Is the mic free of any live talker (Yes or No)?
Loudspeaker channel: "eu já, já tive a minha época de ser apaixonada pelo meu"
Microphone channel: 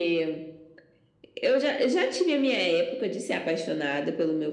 Yes